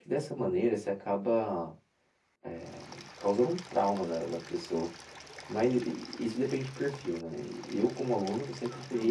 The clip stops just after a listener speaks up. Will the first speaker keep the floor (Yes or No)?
Yes